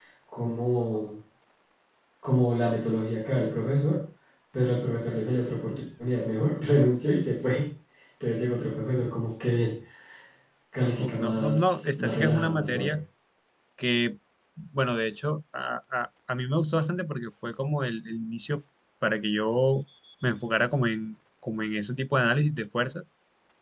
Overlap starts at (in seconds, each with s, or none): 11.0 s